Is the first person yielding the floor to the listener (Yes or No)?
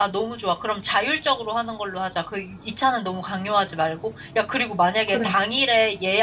No